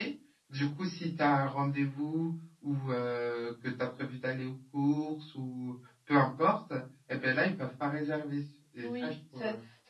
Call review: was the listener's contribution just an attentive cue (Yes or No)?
No